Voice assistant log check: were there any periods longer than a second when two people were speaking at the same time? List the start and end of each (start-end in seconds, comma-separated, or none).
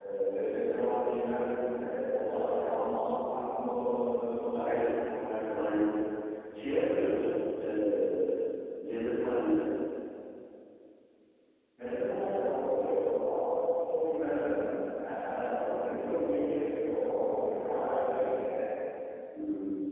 none